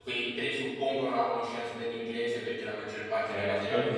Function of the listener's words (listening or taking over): listening